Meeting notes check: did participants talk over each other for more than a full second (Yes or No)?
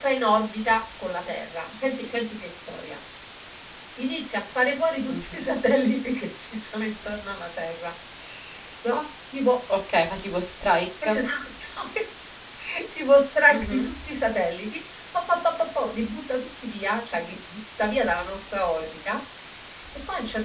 No